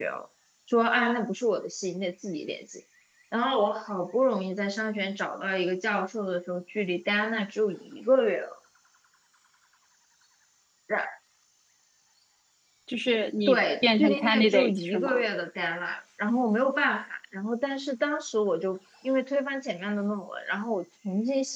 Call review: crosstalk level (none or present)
present